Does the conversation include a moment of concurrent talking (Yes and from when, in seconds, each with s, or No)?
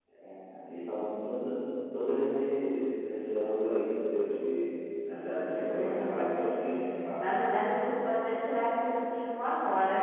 Yes, from 5.3 s